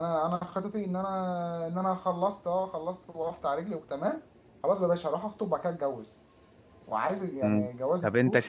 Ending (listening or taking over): taking over